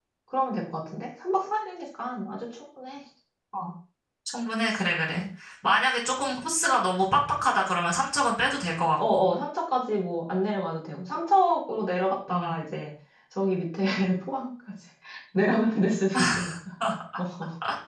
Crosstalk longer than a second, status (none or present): none